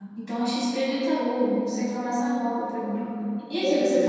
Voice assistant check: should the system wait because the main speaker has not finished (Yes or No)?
Yes